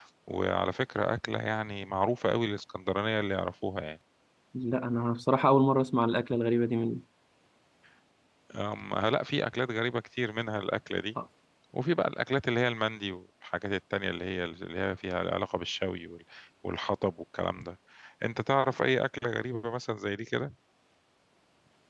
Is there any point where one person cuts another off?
No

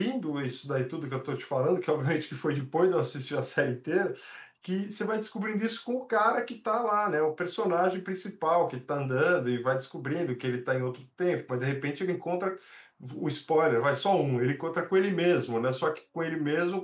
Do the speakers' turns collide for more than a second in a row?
No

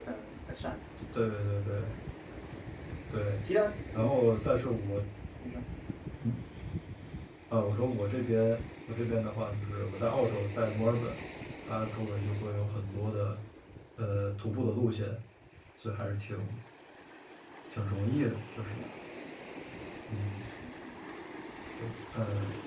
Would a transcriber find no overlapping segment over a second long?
Yes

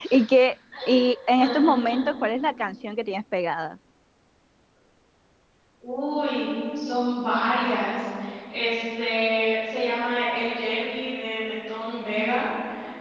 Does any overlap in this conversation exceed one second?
No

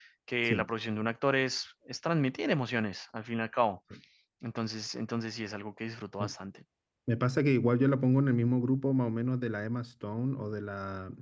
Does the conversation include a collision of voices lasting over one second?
No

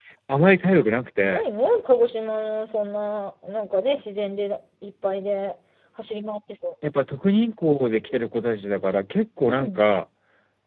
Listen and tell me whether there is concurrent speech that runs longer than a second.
No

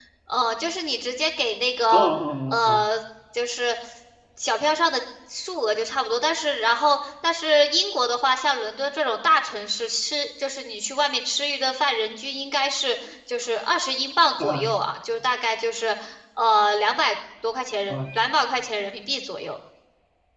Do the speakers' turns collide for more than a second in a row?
No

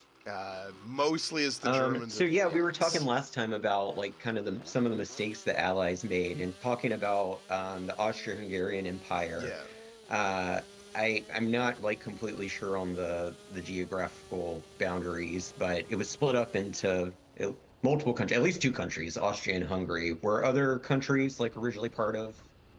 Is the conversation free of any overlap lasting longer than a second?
No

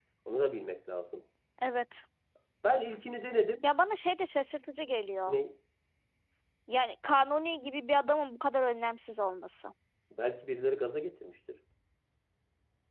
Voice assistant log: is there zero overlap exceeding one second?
Yes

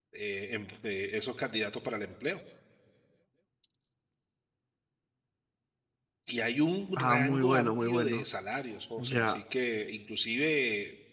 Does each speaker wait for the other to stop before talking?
No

